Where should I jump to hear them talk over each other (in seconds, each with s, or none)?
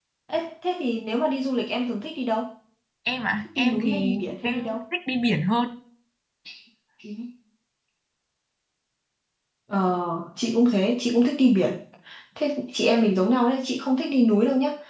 3.4 s